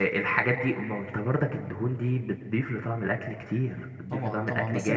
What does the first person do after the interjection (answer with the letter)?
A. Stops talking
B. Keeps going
A